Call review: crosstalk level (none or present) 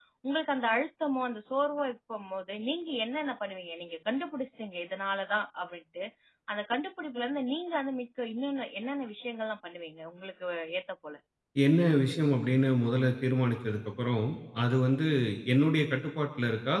none